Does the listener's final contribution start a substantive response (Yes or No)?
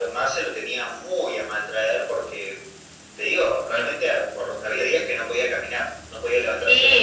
Yes